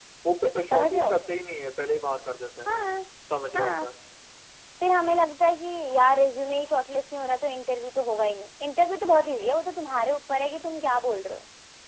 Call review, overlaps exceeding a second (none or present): none